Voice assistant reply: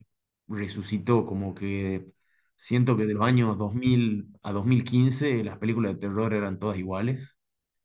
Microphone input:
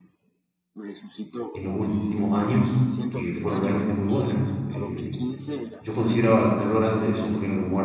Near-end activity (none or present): present